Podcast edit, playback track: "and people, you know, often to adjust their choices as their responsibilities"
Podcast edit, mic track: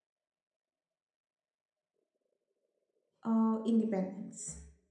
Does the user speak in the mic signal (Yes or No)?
Yes